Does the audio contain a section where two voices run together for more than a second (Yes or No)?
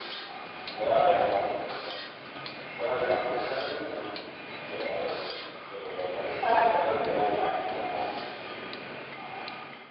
Yes